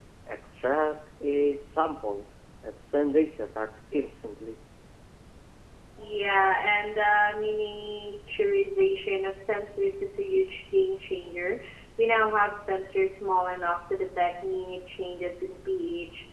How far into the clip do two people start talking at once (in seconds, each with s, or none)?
none